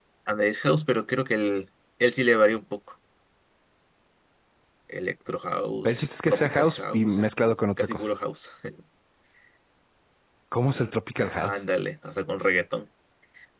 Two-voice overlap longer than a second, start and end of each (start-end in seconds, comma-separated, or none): 5.8-7.1